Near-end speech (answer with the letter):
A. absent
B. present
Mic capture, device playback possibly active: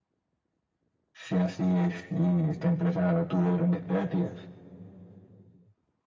A